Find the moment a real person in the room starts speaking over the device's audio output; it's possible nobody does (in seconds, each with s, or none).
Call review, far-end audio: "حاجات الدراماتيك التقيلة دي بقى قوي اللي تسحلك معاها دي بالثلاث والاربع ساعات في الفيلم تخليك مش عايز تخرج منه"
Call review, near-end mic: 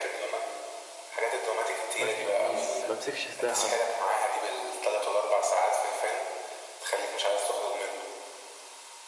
2.0 s